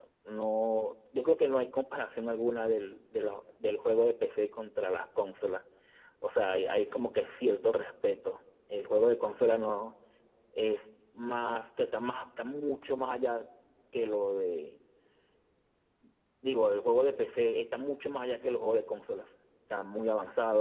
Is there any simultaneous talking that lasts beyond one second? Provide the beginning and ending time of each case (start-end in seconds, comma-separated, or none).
none